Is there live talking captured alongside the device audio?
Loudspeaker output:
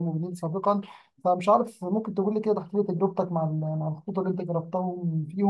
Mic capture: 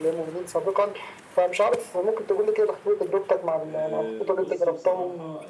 Yes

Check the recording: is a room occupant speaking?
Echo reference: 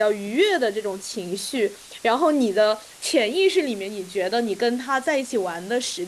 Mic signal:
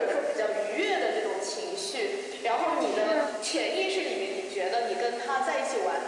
Yes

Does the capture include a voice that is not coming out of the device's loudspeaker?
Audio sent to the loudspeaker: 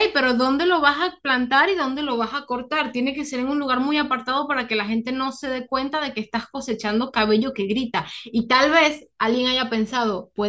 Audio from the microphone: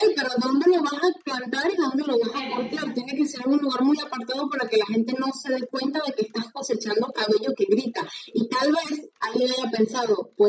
Yes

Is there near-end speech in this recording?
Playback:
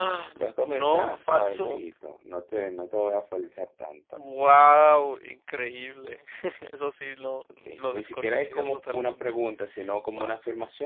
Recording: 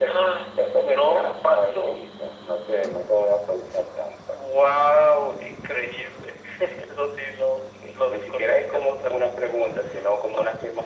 No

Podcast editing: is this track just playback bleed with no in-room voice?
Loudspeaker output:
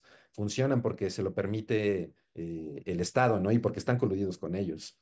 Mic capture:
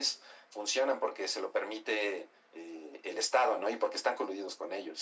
Yes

